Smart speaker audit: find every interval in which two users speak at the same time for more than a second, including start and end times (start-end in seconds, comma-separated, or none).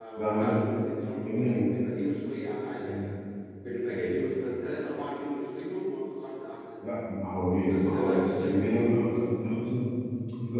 7.6-9.6